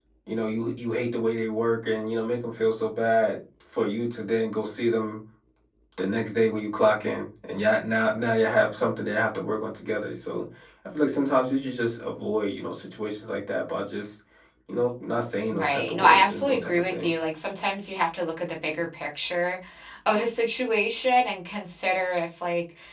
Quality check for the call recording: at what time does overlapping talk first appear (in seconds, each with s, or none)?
15.5 s